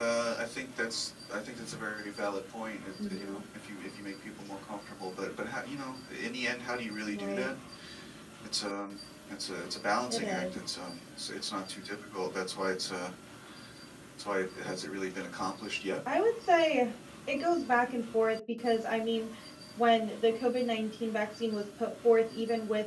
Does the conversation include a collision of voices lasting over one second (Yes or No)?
No